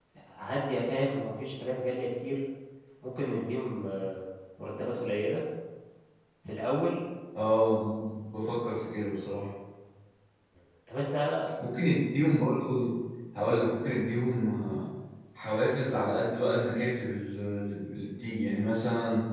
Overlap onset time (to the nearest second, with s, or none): none